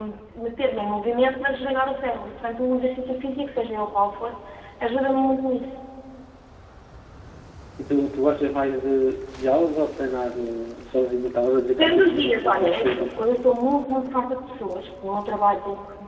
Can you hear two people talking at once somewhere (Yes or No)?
Yes